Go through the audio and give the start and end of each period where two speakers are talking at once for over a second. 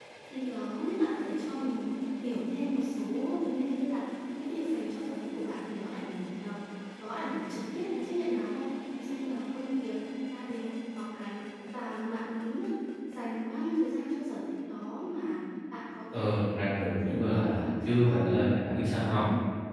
16.8-18.2

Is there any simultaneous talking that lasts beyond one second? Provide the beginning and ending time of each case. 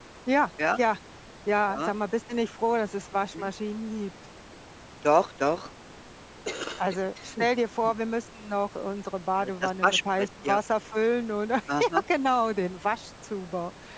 9.4-10.6

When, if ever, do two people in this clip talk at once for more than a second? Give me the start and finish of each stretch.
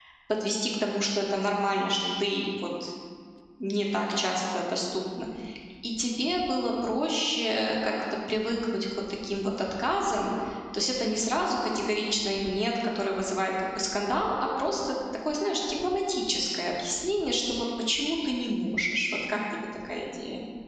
none

